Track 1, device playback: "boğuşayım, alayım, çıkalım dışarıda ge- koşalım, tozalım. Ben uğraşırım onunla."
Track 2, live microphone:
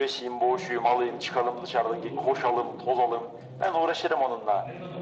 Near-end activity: present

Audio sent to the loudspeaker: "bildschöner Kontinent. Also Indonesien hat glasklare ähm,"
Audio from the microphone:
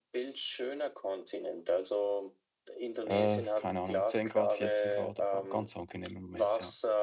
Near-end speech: present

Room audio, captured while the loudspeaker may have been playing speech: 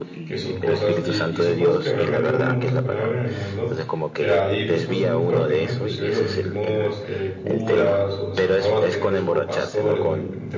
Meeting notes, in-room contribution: present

